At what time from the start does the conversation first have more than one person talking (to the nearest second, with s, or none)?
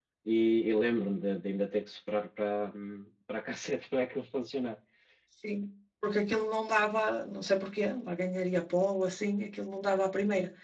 none